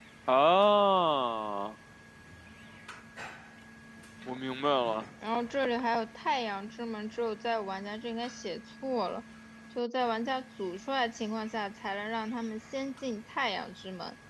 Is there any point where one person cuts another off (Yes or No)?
No